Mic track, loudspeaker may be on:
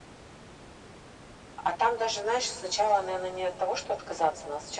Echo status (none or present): present